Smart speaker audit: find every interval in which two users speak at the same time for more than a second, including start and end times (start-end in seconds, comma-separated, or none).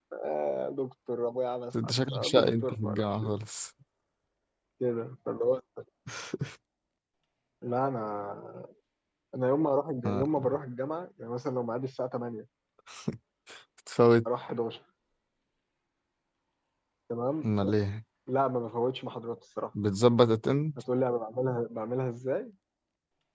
1.8-3.4